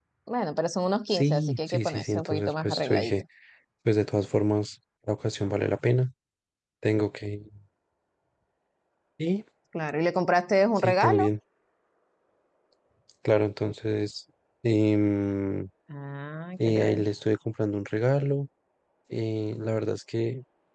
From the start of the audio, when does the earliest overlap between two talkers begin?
1.1 s

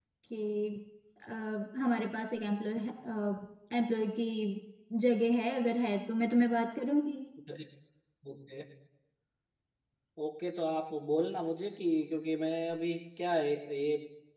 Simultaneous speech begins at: none

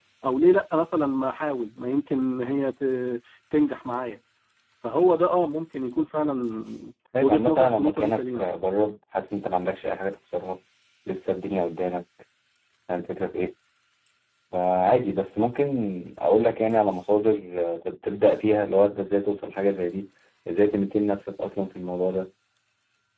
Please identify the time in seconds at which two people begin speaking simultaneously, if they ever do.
7.2 s

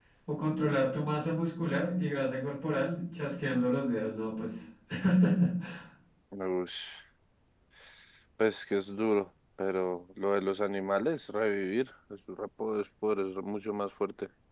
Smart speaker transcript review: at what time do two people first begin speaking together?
none

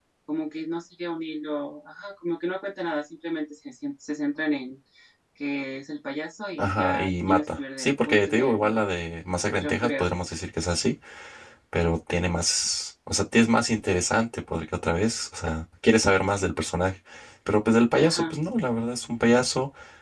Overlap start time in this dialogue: 6.6 s

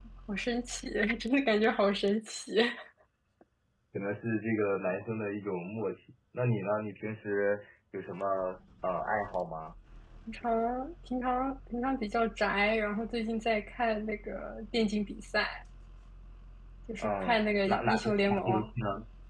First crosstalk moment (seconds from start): 17.0 s

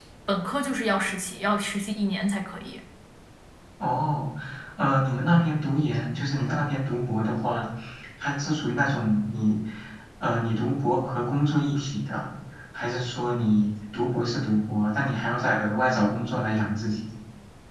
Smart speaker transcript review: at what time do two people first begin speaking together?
none

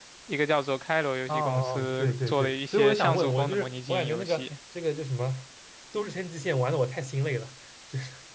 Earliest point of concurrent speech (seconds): 1.3 s

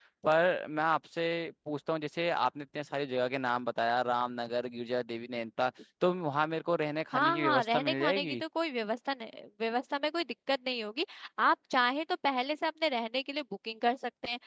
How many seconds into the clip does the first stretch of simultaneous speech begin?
7.1 s

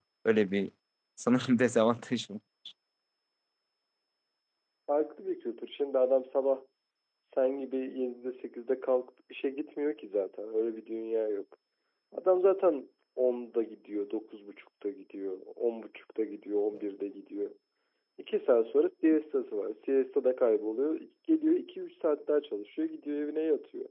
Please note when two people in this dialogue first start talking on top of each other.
none

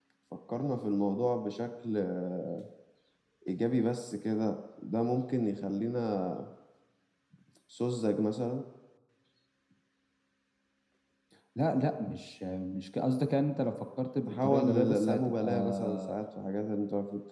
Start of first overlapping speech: 14.3 s

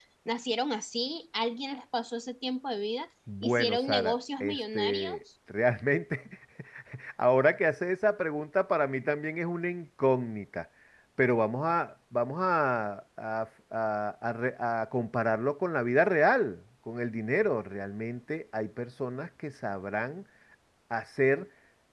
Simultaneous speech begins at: 3.3 s

